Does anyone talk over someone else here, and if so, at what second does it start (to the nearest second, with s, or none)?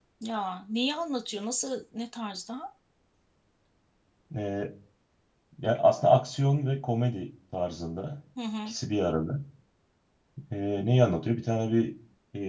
none